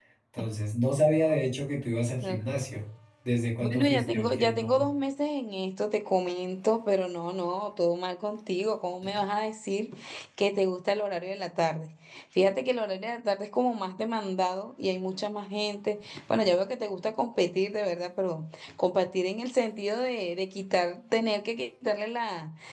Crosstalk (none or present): present